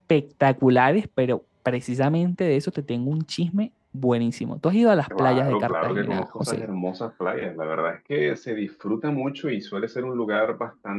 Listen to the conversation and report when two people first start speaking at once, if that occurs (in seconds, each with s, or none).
5.1 s